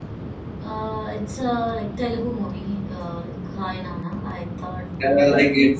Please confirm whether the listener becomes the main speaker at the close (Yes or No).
Yes